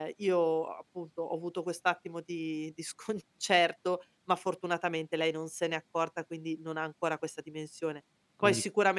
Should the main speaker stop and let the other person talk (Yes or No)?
No